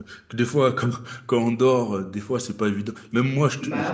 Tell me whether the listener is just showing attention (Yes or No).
Yes